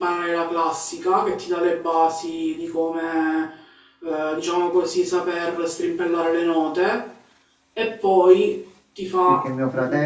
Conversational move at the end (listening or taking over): taking over